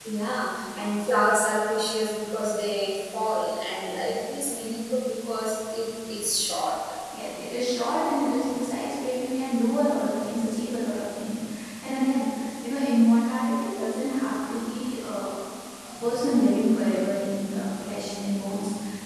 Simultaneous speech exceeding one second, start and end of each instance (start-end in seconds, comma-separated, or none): none